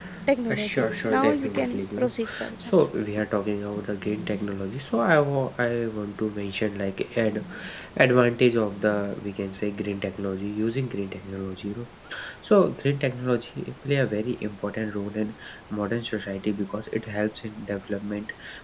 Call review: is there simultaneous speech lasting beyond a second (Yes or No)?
Yes